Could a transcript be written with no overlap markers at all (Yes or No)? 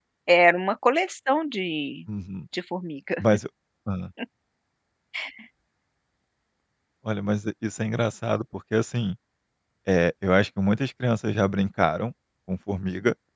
Yes